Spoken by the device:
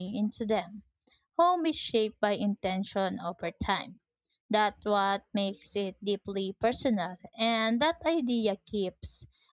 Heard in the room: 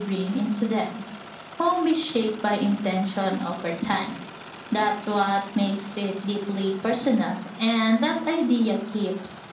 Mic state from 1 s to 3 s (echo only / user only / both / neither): echo only